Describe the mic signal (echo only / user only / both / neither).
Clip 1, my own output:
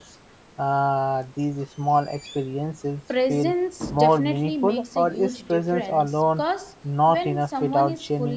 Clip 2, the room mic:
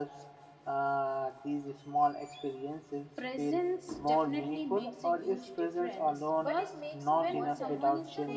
both